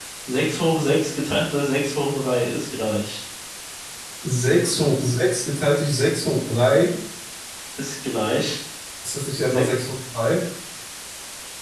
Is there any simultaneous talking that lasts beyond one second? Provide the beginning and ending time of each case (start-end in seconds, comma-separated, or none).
none